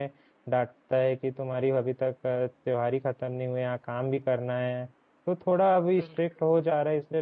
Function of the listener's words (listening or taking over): listening